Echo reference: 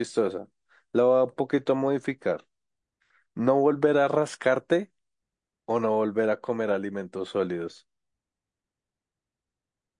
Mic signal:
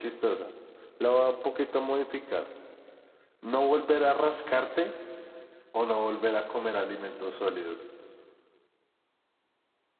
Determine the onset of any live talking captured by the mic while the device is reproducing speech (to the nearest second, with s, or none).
none